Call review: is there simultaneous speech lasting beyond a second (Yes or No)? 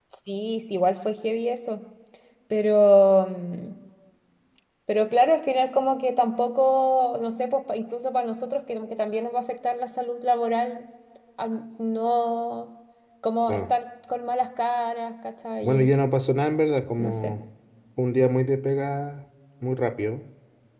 No